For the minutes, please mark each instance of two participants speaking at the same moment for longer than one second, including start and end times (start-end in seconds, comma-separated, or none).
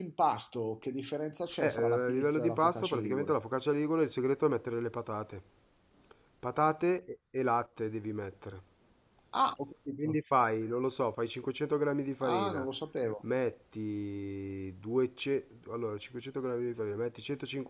1.6-3.3